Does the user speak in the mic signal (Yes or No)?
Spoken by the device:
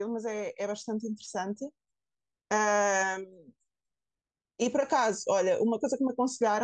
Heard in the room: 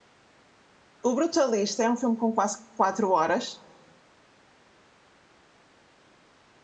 Yes